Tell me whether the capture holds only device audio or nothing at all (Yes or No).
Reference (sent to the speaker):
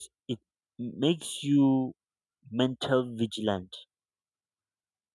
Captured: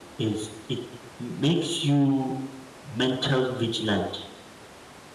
Yes